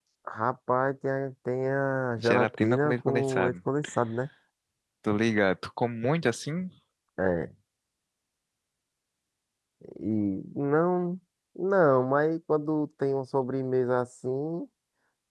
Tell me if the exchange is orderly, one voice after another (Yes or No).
No